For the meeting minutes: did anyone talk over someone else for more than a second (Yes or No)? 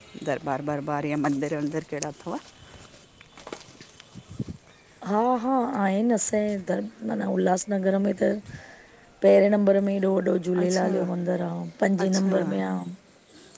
No